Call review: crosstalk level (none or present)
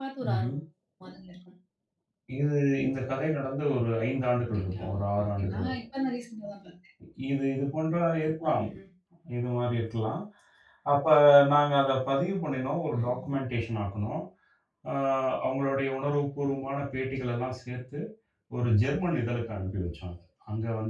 present